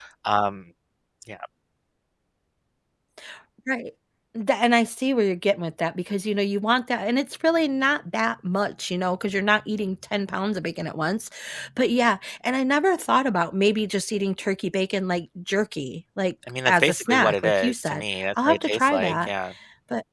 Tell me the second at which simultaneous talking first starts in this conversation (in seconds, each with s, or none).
16.5 s